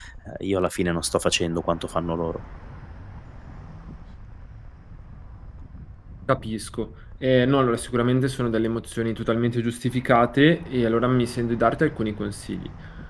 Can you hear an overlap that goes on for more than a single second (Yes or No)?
No